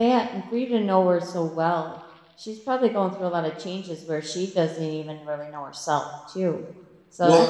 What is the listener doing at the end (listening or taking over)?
listening